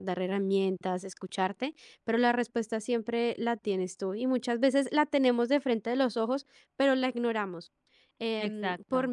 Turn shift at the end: No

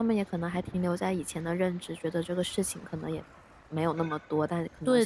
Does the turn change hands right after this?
No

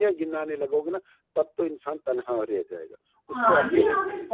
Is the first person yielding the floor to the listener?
Yes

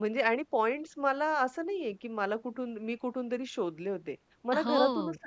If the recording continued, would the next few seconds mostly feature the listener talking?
No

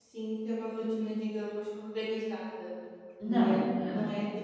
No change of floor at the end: Yes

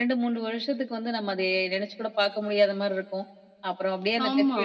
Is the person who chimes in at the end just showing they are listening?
Yes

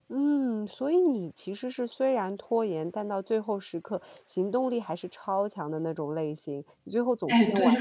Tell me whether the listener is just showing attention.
No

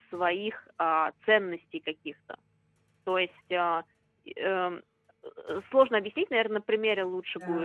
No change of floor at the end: No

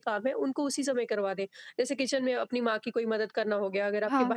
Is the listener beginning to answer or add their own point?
No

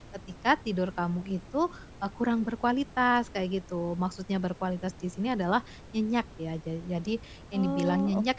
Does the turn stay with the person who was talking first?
Yes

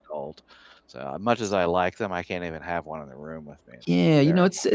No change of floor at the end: No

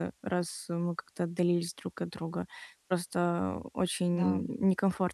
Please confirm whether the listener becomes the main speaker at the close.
No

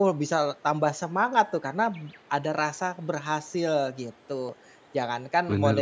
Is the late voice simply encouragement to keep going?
Yes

